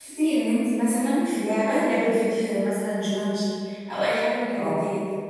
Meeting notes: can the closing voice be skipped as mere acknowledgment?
Yes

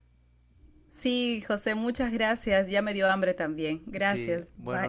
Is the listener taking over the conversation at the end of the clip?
Yes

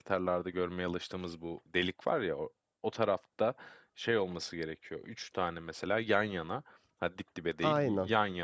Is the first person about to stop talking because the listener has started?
No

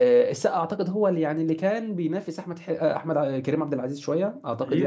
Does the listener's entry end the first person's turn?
Yes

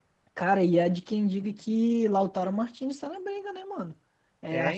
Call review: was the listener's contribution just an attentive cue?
Yes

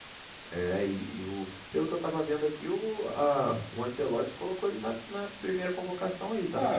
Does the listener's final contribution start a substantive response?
Yes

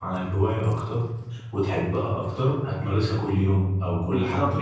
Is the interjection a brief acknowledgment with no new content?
No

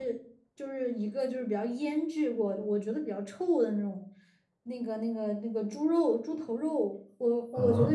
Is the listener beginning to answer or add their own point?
No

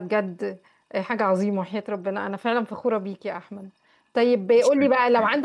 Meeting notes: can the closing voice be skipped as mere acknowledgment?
Yes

